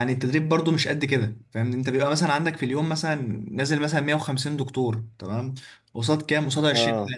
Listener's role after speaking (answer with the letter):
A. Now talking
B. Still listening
B